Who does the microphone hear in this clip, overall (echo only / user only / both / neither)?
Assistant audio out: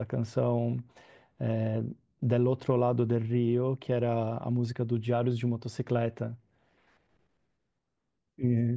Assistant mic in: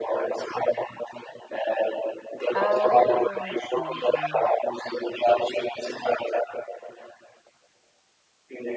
both